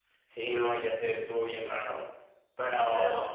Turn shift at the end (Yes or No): No